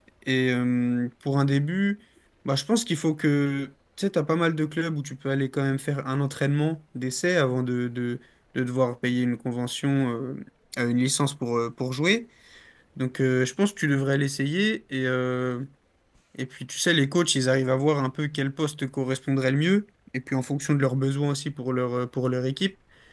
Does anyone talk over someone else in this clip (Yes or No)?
No